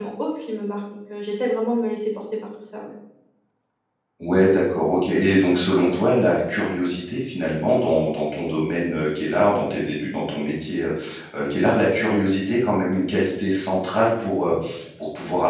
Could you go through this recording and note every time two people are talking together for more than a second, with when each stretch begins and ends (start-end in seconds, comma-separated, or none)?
none